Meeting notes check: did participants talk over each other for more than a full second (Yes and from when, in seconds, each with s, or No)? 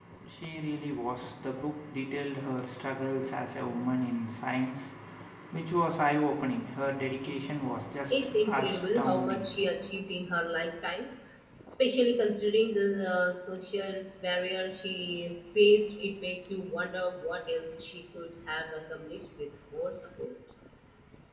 Yes, from 8.1 s